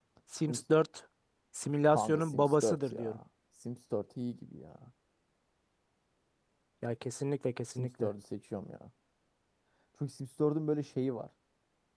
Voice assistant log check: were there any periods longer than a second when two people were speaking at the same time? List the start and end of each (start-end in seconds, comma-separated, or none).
1.9-3.2